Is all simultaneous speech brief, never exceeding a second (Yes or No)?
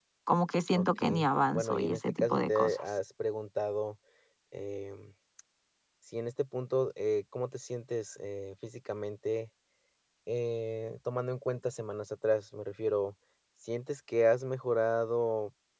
No